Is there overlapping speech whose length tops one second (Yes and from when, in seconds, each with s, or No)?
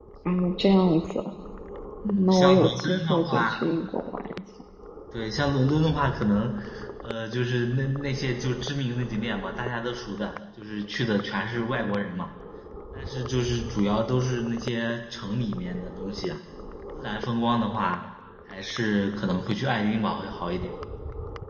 Yes, from 2.0 s